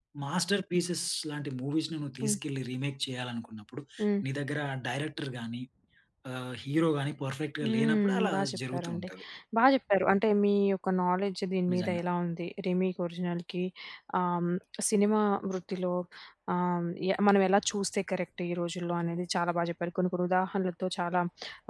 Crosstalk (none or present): present